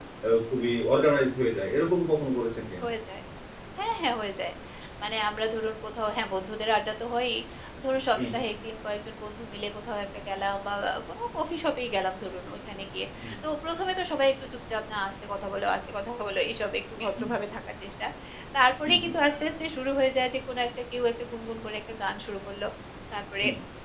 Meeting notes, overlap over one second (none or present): none